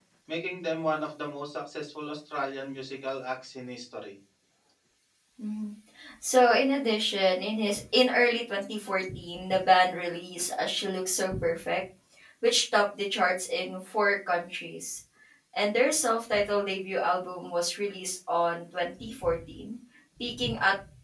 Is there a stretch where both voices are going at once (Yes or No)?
No